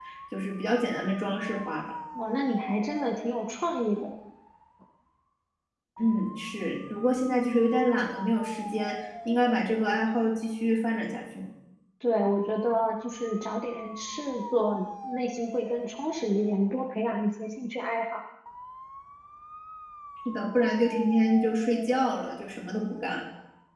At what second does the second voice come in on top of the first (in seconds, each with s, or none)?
none